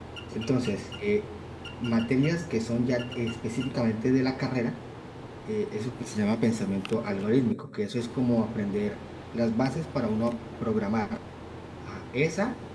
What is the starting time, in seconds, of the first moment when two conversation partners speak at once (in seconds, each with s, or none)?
none